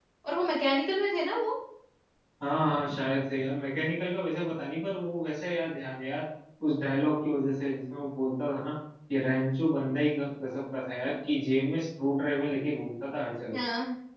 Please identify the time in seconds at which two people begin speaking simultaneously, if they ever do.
none

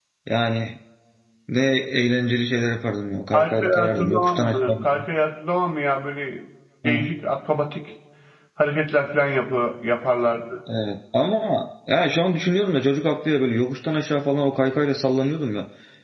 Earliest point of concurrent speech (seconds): 3.3 s

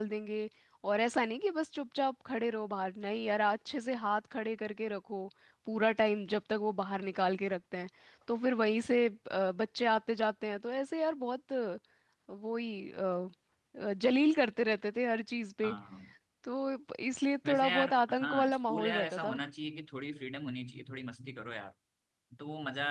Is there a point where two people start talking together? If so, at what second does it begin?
17.5 s

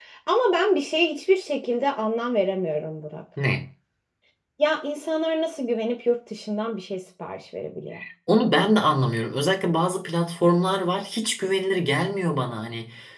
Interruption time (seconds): none

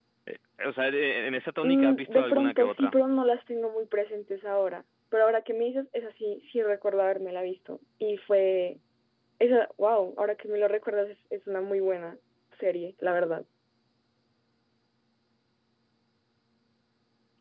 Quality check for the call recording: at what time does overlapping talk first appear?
1.6 s

